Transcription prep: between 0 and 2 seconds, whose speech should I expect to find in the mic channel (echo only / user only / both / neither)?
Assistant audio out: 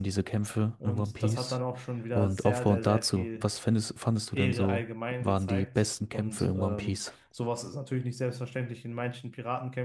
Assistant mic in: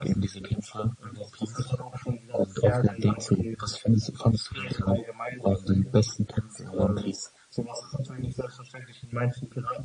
echo only